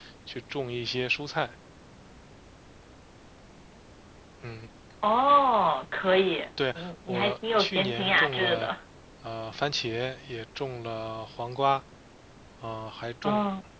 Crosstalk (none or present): present